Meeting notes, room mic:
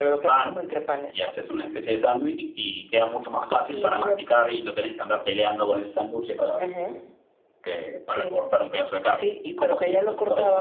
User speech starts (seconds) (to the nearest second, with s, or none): none